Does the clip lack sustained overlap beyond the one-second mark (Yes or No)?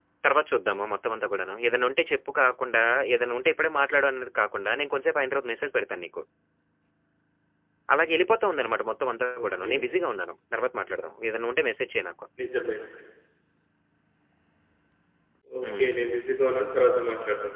Yes